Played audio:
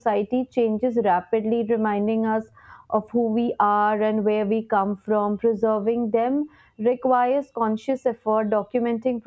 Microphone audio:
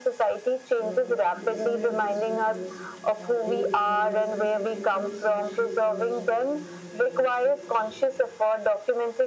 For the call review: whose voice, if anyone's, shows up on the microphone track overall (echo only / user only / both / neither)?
both